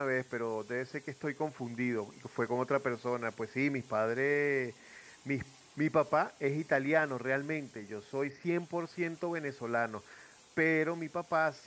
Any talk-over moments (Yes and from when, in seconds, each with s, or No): No